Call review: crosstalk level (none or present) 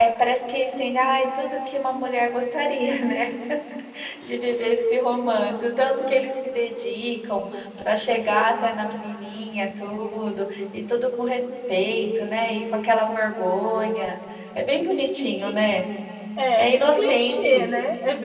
present